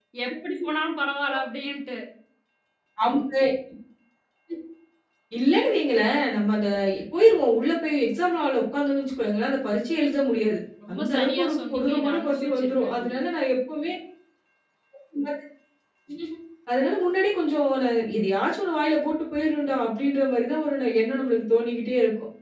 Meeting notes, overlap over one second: present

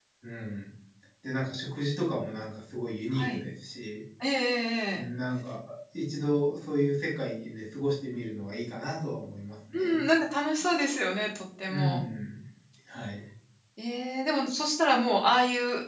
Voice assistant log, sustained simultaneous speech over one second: none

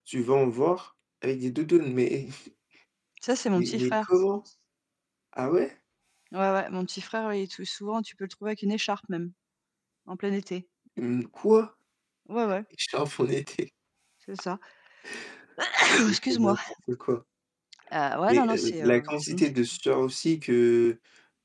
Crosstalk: present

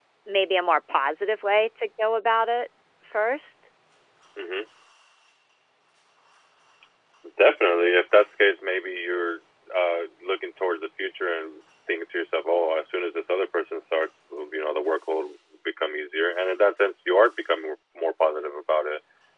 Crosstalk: none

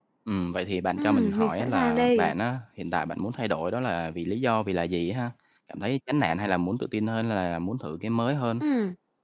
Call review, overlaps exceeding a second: present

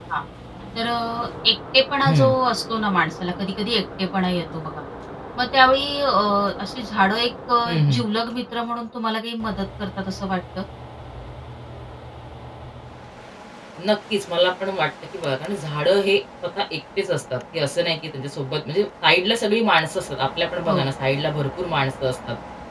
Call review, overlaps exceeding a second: none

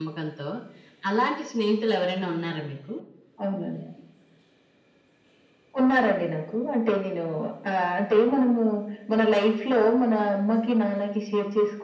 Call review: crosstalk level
none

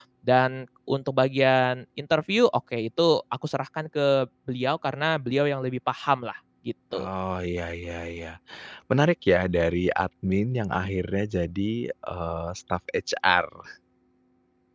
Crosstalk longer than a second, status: none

